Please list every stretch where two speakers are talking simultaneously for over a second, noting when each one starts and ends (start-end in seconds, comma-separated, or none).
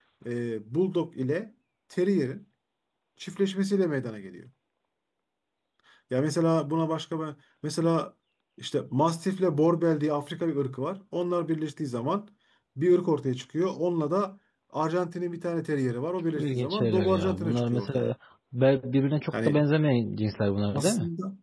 16.4-18.1